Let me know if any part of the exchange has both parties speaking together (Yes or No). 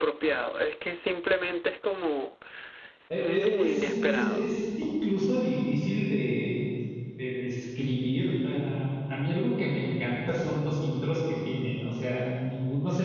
Yes